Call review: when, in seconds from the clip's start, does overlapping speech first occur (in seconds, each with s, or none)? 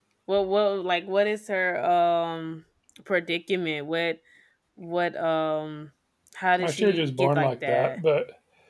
6.6 s